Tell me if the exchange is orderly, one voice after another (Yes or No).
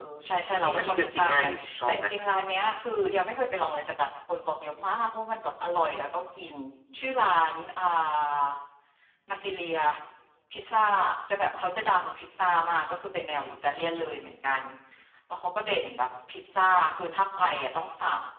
No